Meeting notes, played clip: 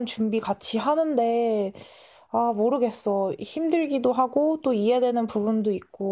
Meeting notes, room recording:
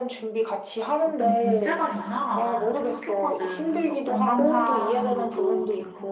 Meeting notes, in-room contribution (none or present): present